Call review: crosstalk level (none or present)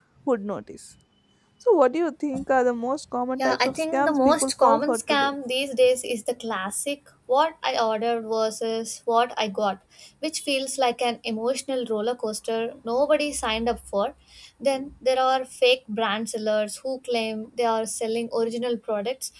present